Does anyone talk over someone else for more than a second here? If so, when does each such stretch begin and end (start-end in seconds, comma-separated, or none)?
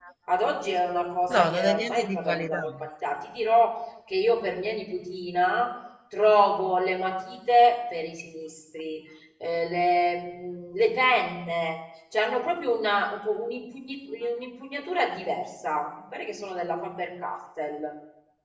1.3-2.9